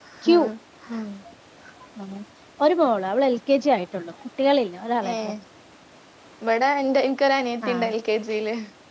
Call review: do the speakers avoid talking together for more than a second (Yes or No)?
Yes